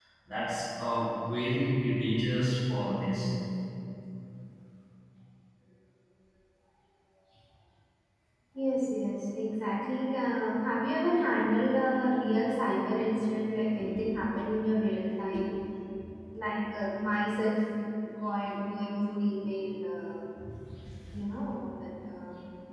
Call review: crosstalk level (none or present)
none